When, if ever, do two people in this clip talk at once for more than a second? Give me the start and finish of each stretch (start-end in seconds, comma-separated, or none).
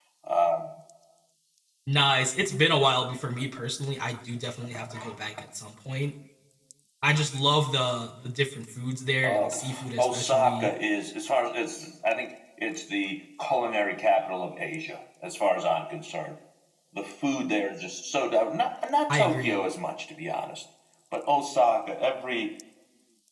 9.2-10.7